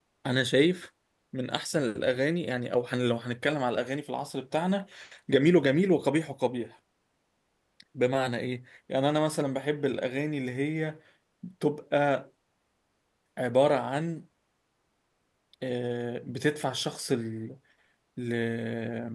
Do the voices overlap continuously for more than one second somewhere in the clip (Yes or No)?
No